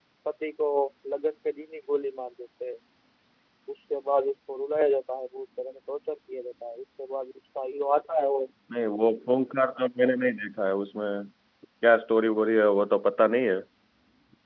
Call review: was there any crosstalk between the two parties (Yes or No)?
No